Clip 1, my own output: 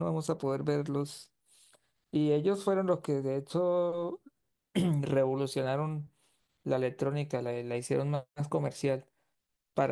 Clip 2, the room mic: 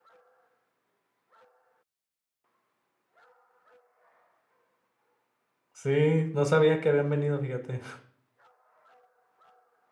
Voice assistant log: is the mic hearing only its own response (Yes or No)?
No